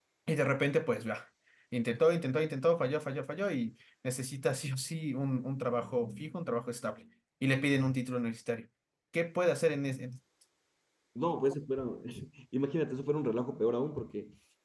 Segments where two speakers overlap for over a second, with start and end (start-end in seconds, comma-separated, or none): none